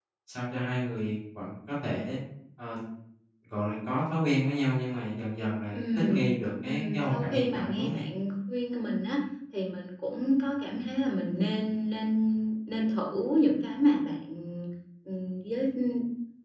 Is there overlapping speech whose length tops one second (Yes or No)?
Yes